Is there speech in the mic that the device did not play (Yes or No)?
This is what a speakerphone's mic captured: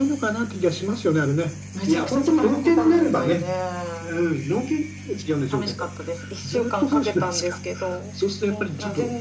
No